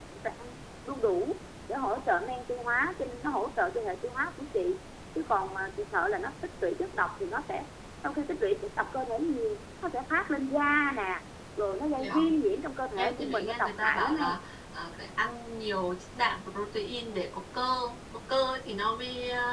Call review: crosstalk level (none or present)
present